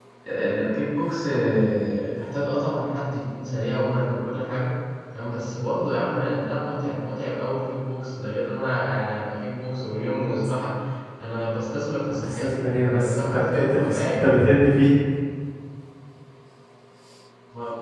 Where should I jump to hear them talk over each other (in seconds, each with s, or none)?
12.2 s